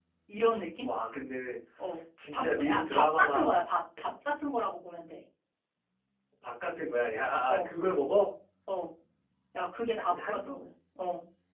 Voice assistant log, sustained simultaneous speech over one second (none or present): present